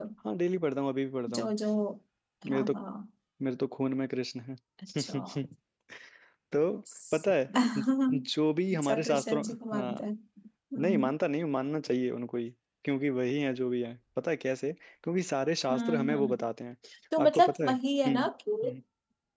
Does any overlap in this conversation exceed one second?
Yes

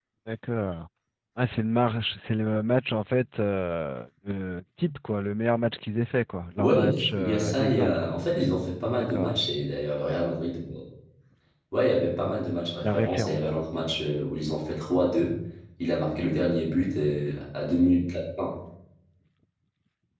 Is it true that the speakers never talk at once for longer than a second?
No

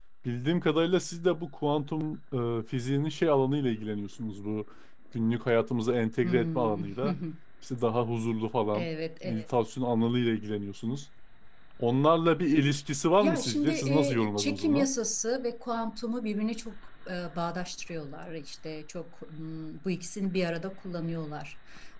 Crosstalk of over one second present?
Yes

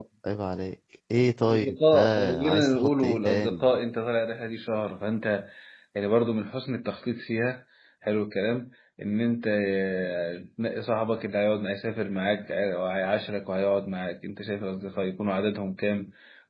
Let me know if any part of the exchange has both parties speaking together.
Yes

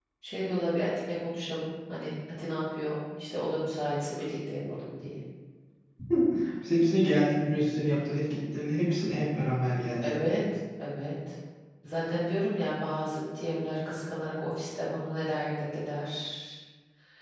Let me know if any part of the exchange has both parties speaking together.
No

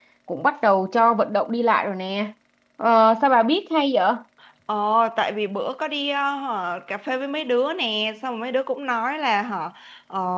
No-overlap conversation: Yes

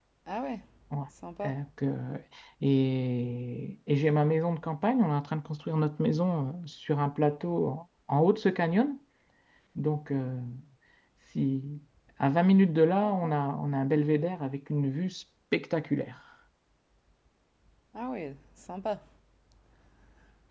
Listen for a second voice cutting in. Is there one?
No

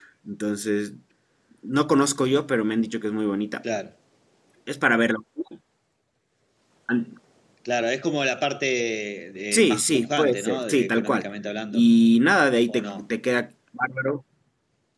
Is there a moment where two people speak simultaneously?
Yes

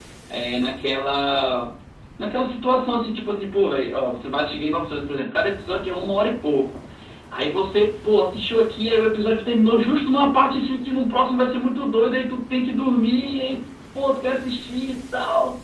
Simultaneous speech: No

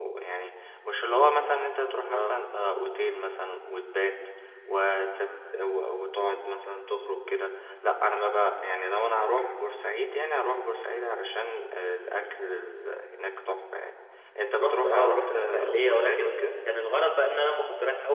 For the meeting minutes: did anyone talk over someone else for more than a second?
Yes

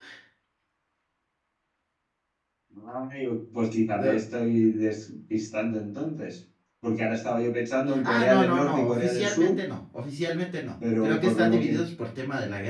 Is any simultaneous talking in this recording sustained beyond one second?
Yes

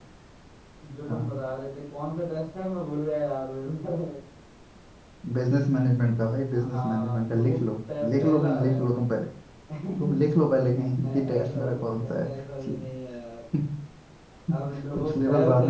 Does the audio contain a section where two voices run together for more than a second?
Yes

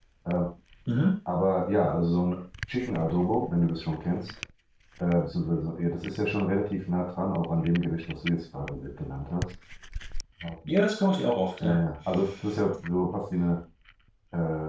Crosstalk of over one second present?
No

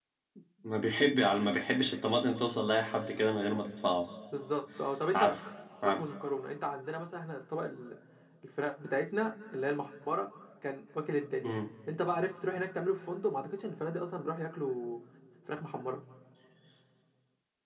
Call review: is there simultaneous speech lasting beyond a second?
No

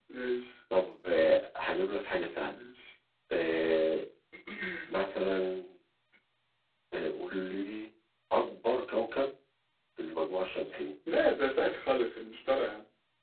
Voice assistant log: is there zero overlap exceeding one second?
Yes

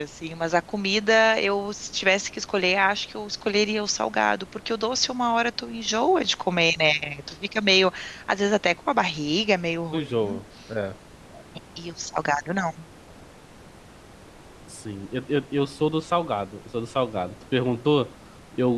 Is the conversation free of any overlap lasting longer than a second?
Yes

